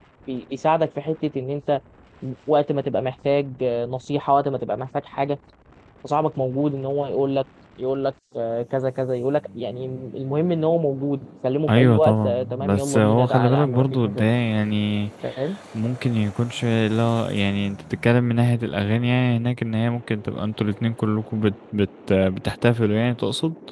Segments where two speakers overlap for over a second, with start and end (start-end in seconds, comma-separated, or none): 11.7-14.2